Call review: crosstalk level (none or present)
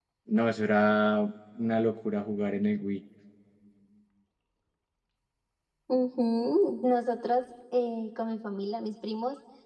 none